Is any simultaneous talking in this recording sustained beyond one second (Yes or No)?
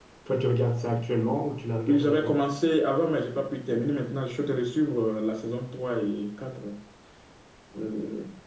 No